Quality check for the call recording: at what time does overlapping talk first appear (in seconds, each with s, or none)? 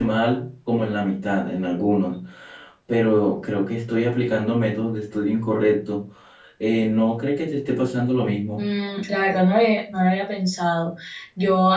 none